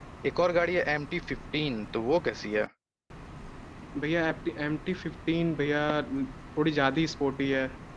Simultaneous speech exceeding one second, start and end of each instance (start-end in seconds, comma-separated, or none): none